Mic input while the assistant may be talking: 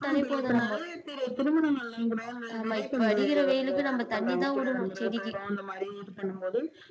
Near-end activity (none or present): present